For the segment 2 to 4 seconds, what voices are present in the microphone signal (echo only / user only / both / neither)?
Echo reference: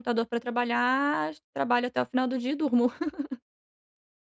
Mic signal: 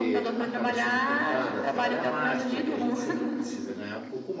both